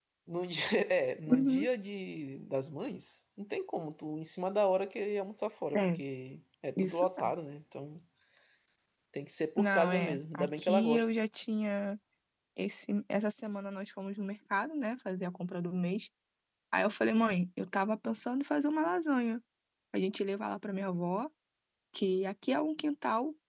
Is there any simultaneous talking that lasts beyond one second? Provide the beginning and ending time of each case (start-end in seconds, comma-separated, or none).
9.6-11.1